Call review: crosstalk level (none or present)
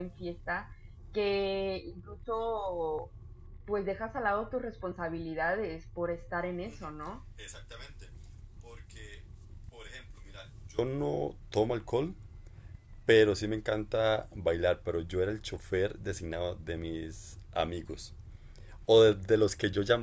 none